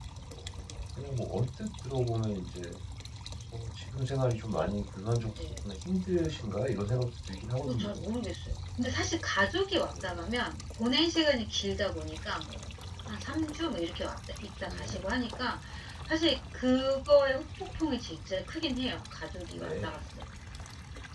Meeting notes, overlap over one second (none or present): none